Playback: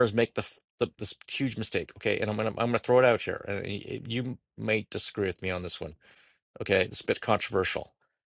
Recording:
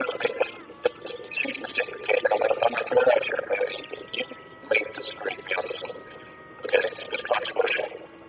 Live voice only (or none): none